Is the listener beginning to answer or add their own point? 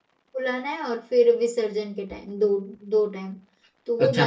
Yes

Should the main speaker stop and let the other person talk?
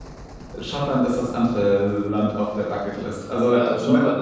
Yes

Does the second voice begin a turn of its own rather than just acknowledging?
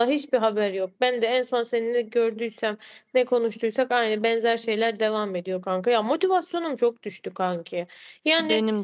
No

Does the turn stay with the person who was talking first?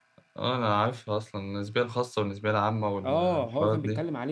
No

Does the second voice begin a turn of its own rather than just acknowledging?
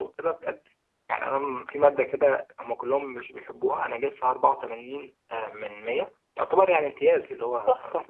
No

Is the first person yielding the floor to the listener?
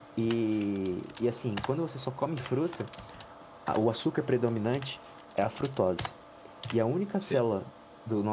No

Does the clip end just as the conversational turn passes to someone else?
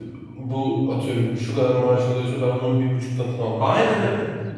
No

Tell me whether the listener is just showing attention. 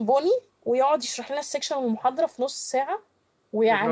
Yes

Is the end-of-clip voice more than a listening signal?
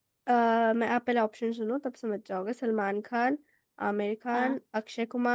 No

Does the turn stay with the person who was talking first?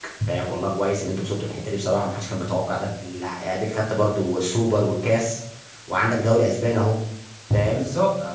No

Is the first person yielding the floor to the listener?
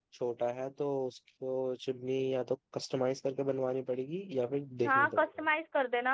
Yes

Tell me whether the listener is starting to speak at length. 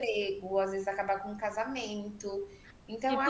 Yes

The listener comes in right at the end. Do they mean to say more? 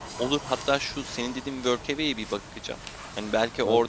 No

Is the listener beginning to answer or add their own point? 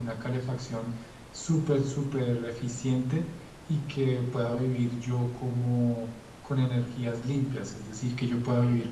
No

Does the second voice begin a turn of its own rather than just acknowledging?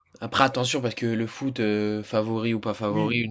Yes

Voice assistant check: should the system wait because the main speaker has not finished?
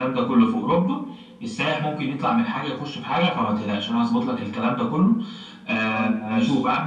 Yes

